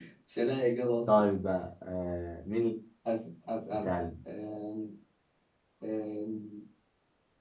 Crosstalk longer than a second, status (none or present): none